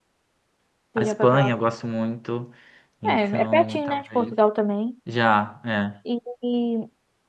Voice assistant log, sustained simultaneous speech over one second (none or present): present